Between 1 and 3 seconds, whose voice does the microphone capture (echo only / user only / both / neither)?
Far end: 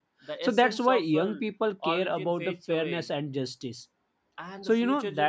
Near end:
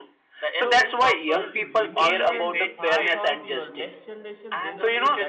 both